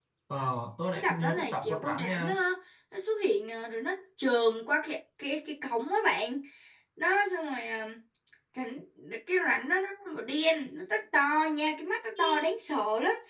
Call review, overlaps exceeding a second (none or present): present